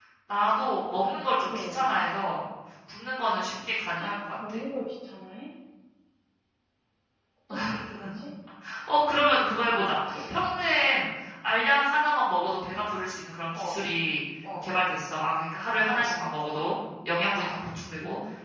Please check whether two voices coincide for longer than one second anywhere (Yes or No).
No